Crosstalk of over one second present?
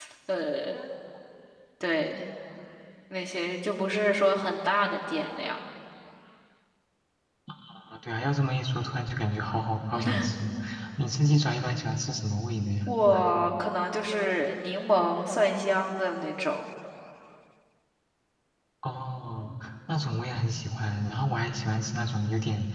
No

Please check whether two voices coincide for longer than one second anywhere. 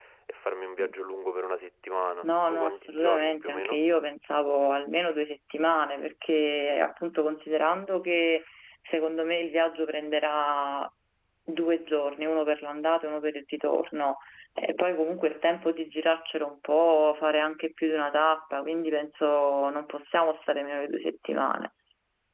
Yes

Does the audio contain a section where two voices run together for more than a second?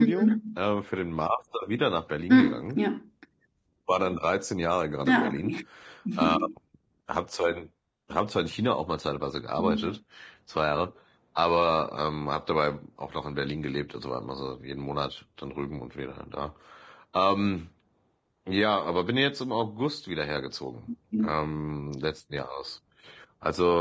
No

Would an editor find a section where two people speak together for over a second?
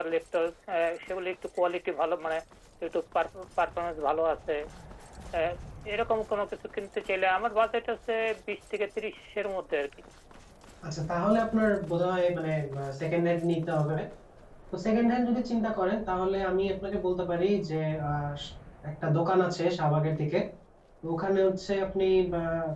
No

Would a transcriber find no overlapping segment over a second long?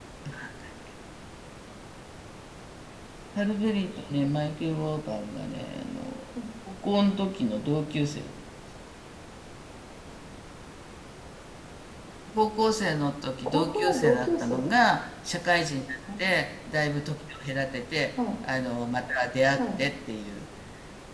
No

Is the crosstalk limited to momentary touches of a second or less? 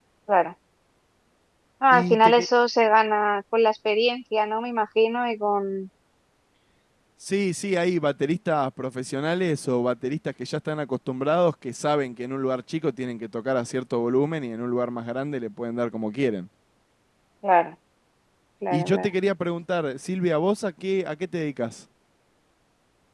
Yes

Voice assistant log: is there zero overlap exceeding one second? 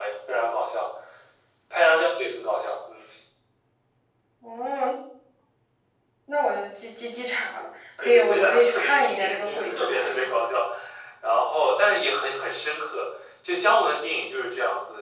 No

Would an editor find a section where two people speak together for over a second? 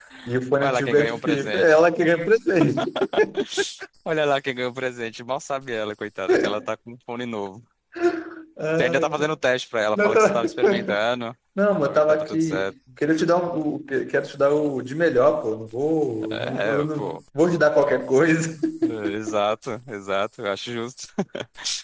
Yes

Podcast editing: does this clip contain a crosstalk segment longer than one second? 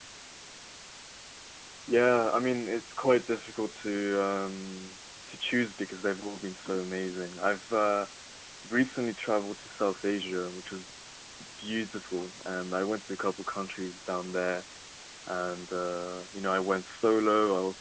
No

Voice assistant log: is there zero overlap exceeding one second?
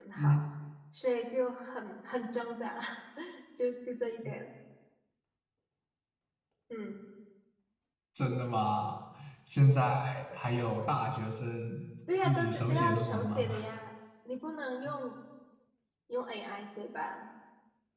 No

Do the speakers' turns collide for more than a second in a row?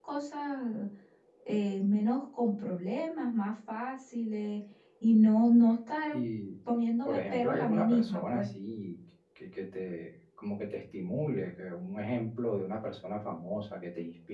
Yes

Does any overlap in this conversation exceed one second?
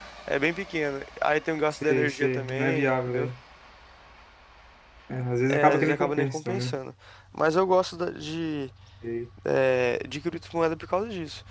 Yes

